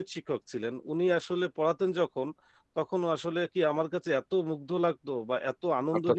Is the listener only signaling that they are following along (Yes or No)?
Yes